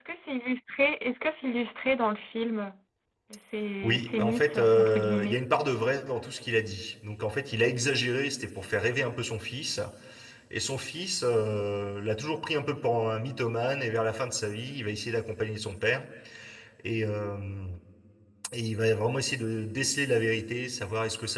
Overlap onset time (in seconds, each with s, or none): 3.8 s